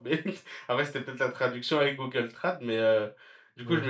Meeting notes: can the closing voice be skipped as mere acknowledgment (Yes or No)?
Yes